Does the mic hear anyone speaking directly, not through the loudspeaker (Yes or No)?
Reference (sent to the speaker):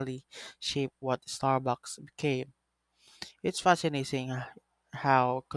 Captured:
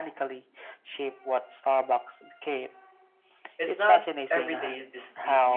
Yes